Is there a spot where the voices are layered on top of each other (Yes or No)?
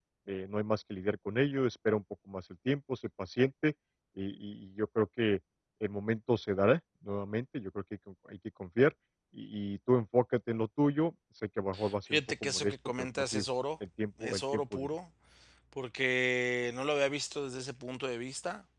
Yes